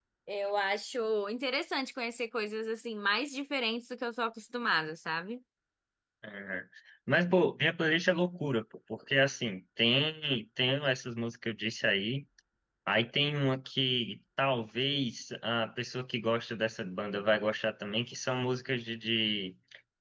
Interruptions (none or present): none